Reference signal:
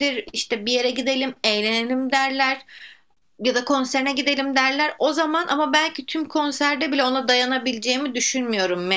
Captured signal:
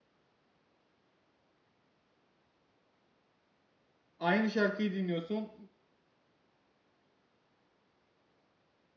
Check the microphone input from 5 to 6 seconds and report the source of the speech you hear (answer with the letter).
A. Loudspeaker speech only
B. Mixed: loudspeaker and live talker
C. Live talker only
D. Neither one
C